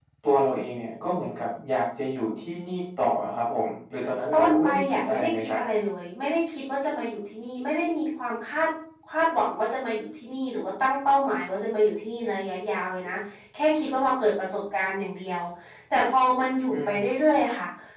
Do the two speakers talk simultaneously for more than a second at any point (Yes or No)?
Yes